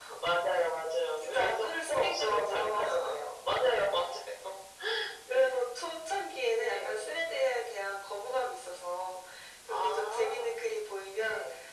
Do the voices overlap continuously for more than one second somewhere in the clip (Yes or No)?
Yes